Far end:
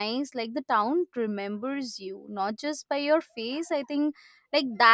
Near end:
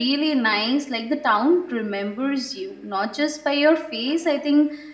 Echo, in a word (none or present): present